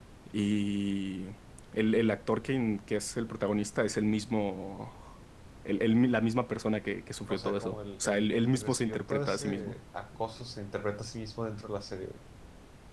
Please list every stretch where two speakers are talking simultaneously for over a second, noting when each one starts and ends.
7.3-9.8

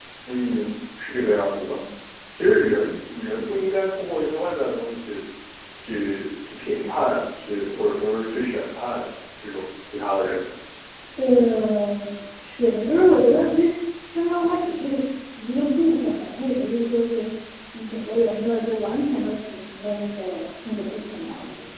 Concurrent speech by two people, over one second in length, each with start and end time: none

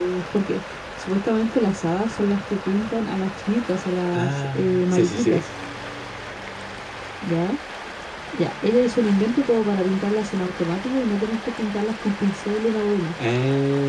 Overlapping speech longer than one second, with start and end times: 4.1-5.4

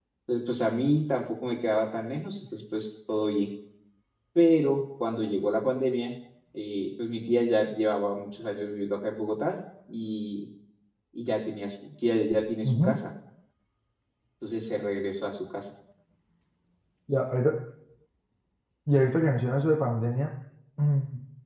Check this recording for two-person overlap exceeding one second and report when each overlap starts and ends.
none

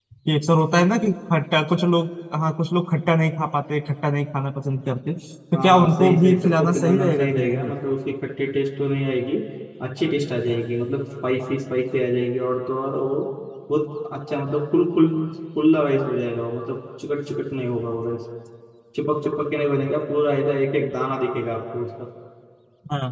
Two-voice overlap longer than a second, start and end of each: 5.5-7.7

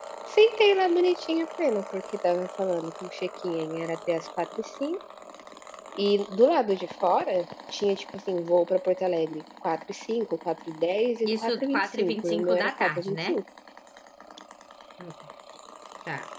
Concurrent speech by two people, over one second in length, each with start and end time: 11.2-13.4

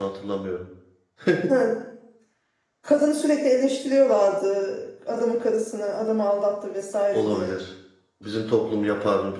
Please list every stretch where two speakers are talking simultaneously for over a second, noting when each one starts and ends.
none

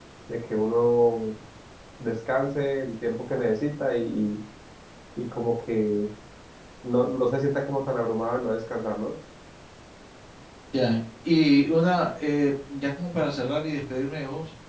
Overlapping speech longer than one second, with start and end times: none

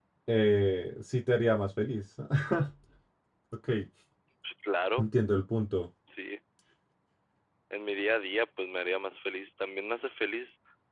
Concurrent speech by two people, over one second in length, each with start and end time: none

